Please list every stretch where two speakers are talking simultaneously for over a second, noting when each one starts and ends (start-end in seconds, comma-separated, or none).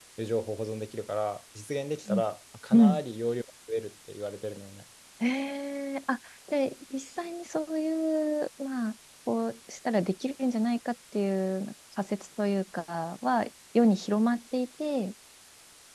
none